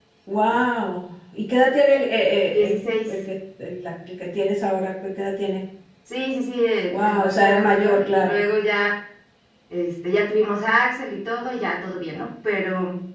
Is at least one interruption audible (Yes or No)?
Yes